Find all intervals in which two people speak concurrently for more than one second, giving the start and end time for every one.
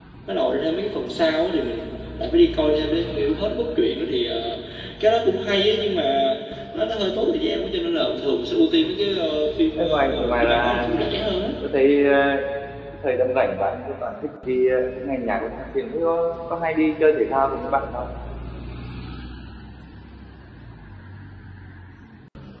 9.8-11.2

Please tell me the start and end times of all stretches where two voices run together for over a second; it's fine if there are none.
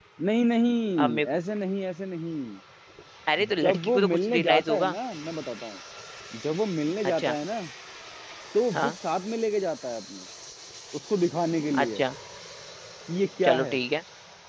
3.6-4.9

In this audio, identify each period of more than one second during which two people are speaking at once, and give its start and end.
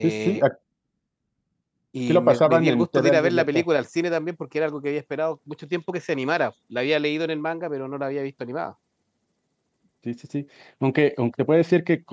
2.1-3.6

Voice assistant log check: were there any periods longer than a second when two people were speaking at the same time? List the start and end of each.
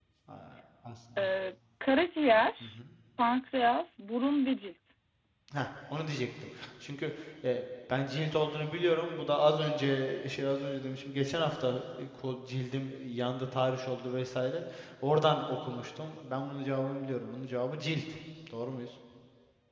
none

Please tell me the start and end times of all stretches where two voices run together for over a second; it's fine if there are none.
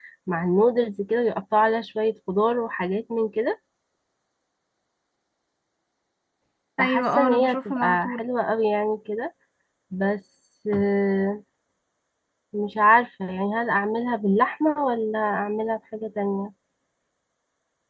6.8-8.2

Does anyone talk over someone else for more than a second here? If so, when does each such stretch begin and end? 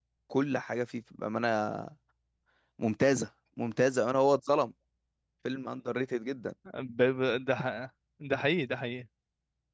none

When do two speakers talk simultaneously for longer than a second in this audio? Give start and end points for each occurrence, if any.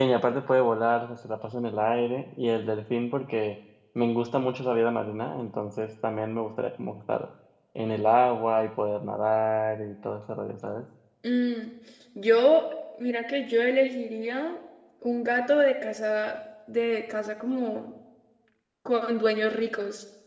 none

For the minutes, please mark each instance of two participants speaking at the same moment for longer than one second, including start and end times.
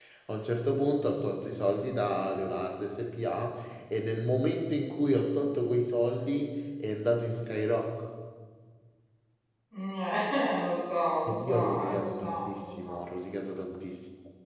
11.3-13.0

